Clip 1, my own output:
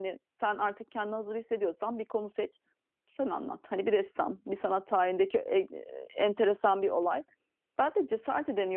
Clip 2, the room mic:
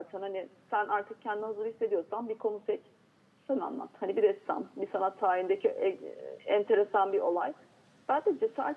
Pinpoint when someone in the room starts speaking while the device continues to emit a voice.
none

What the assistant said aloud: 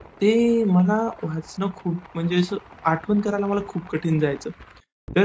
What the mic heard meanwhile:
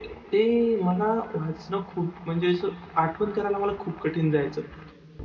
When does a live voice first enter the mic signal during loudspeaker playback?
none

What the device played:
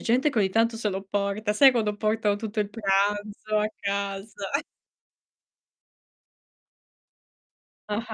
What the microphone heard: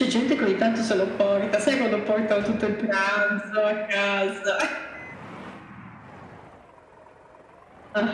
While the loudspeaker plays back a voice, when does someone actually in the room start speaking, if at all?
none

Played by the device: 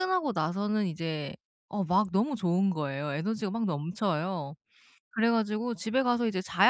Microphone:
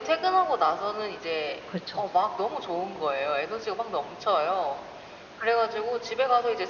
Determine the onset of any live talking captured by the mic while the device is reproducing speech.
1.6 s

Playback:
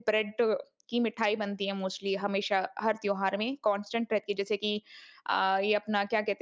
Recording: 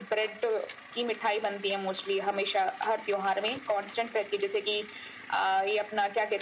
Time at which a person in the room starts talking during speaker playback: none

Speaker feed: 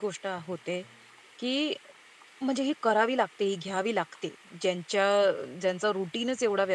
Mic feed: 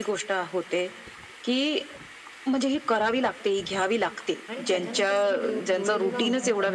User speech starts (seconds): 4.5 s

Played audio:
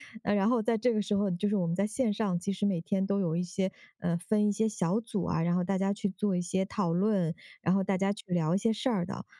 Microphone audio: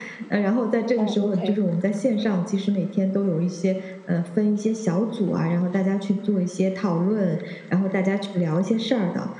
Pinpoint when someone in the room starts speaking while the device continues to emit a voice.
1.0 s

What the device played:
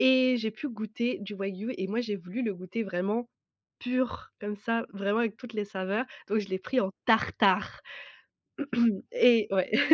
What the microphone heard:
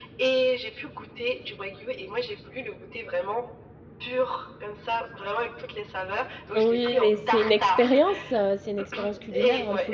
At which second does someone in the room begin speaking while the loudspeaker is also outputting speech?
6.6 s

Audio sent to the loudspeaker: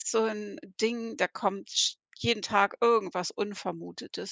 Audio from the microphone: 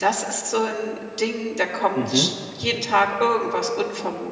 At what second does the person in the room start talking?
1.9 s

